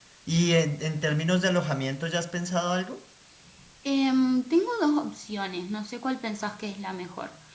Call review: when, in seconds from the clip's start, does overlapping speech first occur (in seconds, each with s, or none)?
none